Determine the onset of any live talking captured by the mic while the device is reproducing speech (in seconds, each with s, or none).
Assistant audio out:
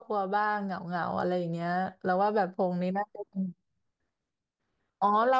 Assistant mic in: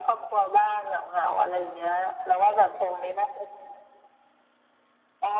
none